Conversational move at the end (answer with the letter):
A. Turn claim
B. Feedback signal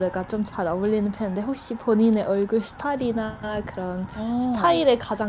B